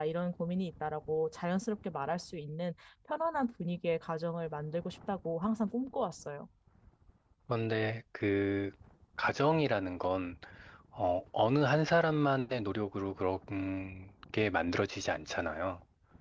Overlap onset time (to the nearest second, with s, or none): none